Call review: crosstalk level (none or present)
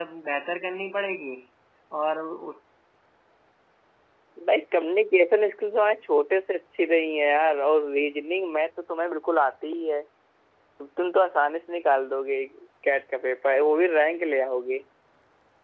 none